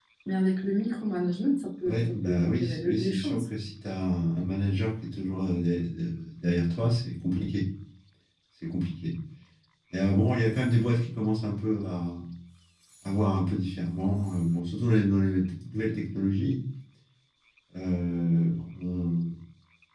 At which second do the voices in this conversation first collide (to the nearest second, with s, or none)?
2 s